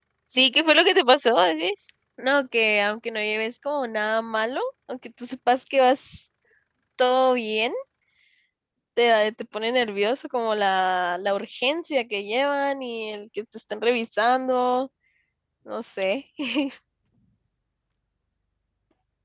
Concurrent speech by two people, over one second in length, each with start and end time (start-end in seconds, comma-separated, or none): none